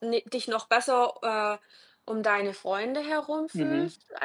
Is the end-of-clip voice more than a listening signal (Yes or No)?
Yes